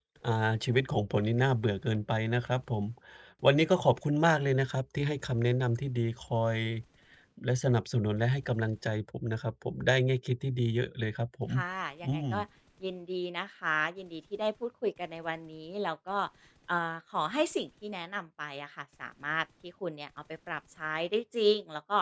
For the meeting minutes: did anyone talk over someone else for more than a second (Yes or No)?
No